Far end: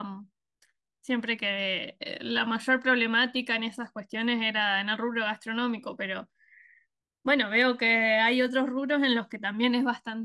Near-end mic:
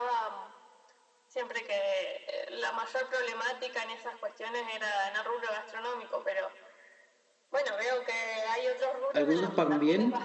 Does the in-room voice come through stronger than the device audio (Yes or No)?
Yes